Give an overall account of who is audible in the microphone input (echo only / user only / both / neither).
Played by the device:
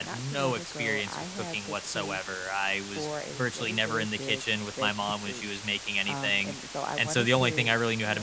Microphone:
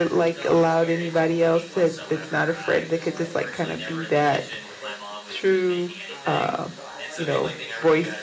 both